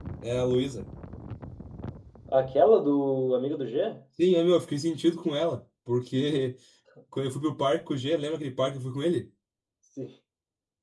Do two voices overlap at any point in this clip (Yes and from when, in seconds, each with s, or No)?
No